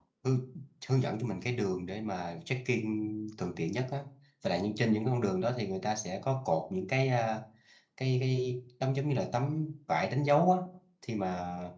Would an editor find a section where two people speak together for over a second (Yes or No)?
No